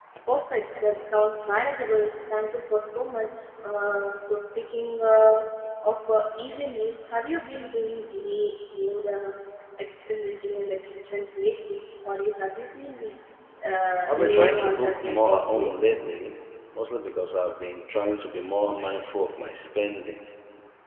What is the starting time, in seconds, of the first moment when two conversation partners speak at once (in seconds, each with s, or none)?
14.1 s